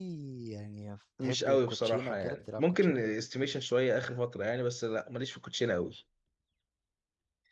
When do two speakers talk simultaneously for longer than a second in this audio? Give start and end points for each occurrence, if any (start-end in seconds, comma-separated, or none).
1.2-3.0